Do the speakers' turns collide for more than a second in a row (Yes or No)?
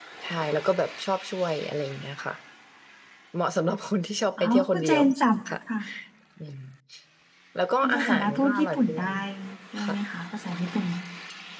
Yes